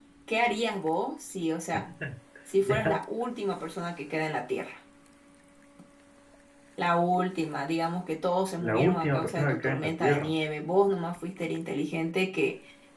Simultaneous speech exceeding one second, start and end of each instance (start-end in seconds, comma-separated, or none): 8.6-10.3